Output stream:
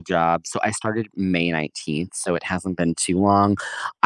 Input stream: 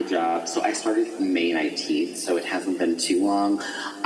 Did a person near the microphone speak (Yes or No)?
No